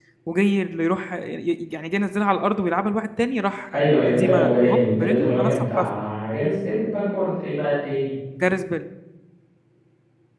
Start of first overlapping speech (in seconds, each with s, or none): 3.7 s